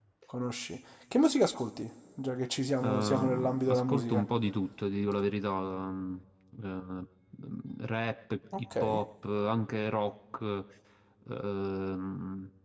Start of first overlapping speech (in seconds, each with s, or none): 2.8 s